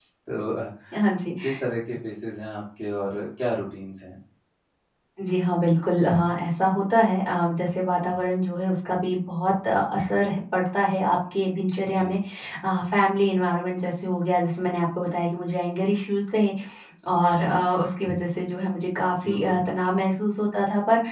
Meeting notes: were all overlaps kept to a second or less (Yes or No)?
Yes